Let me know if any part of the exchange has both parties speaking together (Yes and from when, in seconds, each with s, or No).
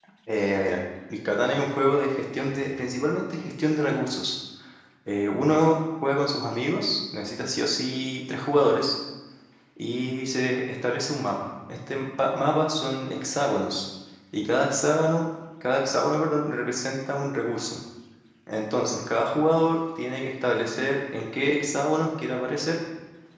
No